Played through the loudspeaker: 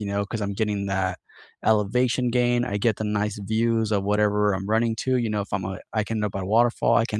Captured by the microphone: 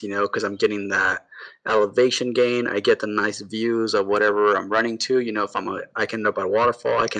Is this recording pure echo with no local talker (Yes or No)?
Yes